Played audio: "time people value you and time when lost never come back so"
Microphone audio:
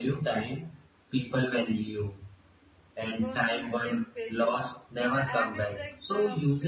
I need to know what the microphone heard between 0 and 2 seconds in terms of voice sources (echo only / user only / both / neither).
echo only